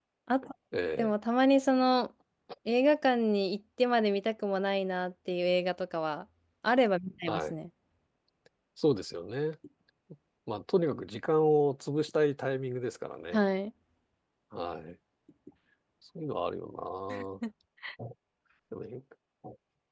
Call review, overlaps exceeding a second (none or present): none